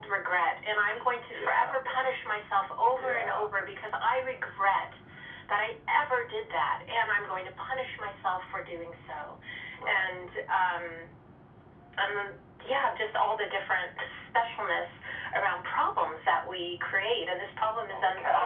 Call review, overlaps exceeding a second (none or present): none